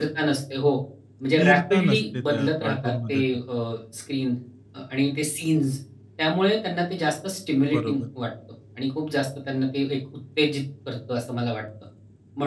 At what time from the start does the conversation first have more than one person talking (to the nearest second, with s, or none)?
1 s